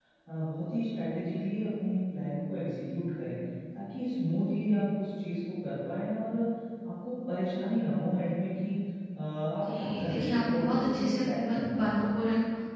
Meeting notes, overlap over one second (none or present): present